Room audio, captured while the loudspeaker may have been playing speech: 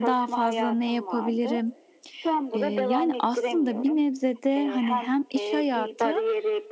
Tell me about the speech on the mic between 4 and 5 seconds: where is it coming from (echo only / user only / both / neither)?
both